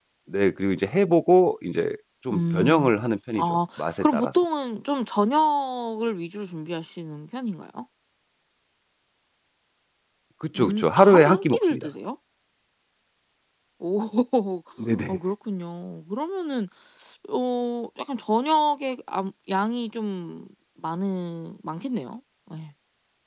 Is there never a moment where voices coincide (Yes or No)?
No